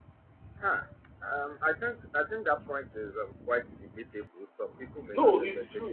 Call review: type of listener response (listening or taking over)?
taking over